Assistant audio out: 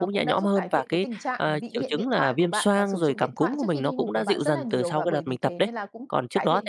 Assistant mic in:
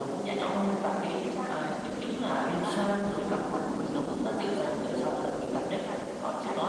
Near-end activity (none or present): none